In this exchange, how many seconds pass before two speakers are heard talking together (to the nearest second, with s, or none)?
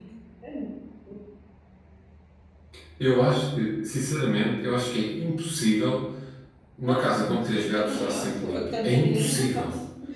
7 s